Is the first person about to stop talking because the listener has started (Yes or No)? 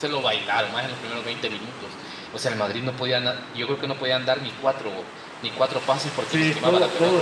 Yes